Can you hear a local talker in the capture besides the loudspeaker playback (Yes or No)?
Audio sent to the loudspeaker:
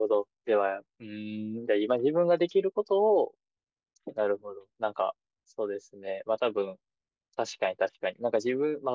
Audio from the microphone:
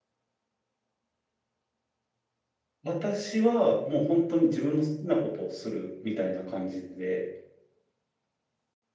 Yes